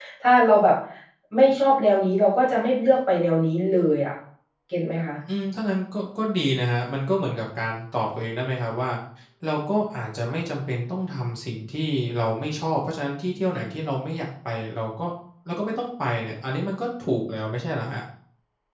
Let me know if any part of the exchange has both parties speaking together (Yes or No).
No